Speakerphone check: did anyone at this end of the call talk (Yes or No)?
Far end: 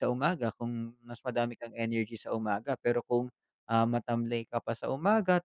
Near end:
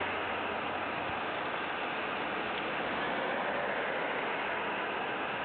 No